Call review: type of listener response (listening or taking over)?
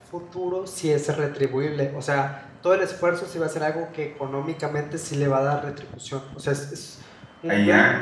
taking over